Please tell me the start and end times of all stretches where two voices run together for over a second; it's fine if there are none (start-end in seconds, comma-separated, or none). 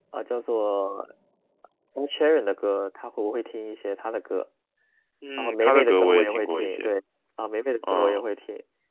5.4-6.9